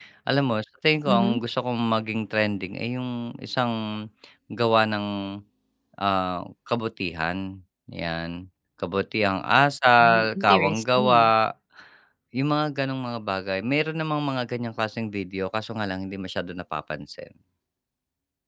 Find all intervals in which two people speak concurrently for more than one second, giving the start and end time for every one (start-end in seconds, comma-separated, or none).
10.0-11.3